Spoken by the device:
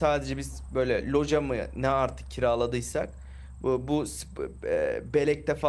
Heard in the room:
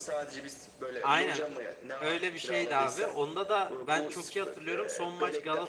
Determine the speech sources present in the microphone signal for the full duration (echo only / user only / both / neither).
both